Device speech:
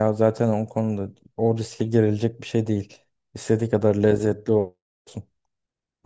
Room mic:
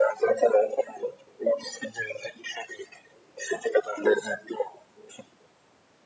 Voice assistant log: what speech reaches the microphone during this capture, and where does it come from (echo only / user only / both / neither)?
echo only